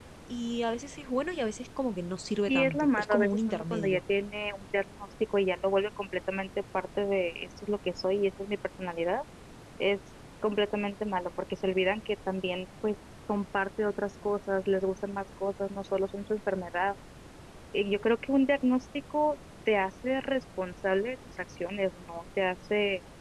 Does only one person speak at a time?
No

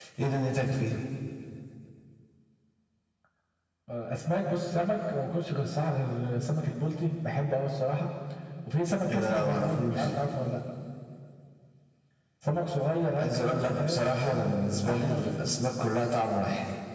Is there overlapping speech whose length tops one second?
Yes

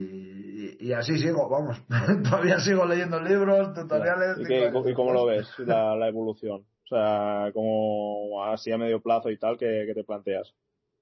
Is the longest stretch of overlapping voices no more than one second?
No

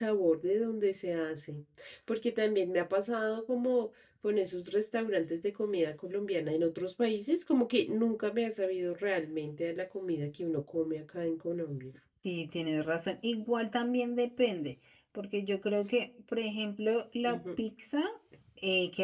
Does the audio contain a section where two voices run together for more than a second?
No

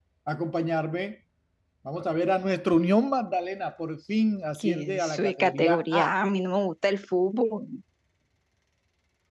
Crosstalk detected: Yes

